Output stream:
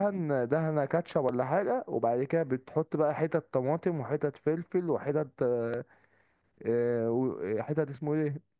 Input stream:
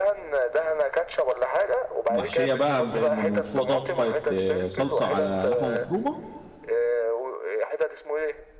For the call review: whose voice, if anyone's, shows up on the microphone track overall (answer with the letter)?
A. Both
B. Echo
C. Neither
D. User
A